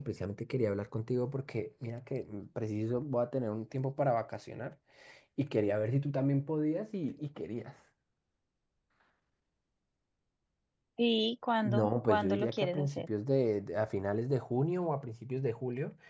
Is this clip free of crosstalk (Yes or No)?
No